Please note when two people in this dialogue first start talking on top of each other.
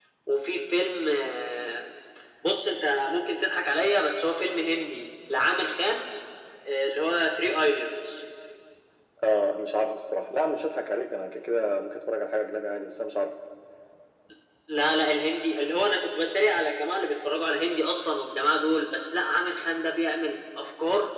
none

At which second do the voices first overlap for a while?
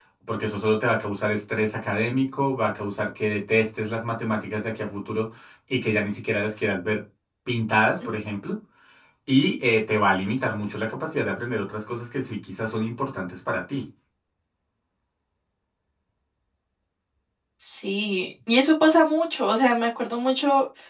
none

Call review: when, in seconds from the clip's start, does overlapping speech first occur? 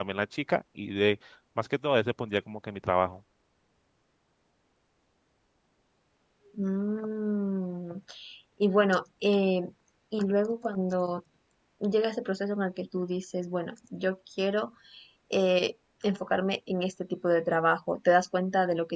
none

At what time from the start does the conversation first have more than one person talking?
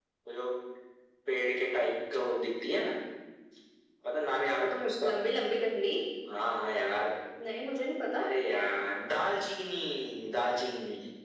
none

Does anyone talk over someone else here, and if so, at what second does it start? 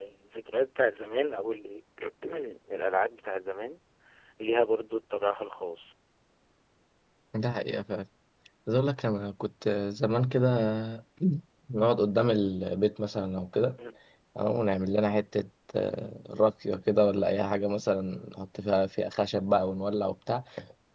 none

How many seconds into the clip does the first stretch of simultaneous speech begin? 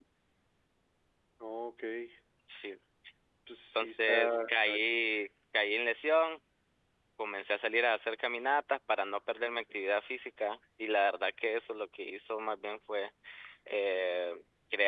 3.8 s

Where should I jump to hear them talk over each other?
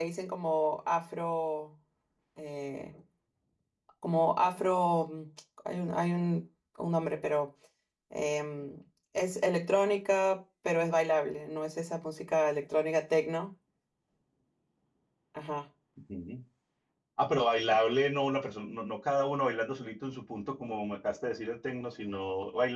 none

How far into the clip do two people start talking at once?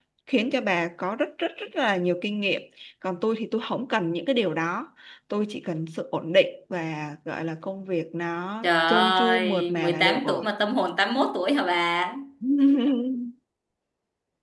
8.6 s

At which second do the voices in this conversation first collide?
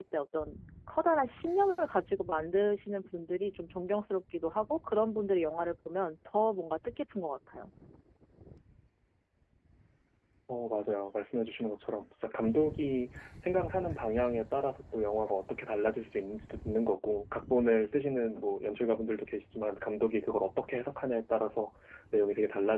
none

